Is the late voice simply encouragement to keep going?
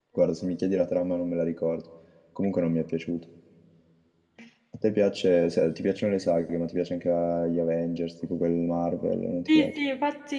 No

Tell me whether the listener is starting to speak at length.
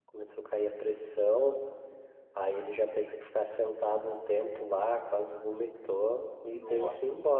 No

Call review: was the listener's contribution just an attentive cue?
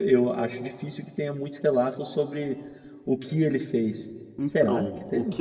No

